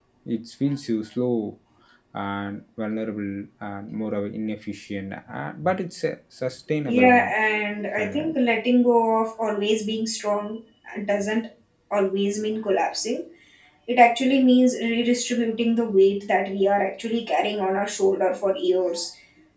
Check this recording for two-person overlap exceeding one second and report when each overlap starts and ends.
none

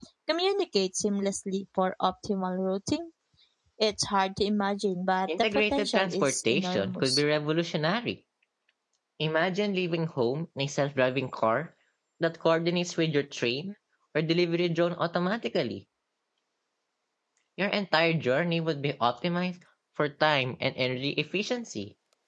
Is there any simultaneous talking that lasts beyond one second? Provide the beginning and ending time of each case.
5.3-7.2

